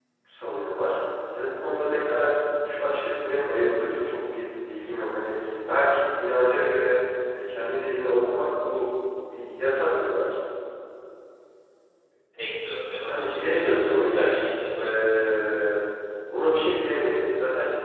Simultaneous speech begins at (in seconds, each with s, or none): 13.1 s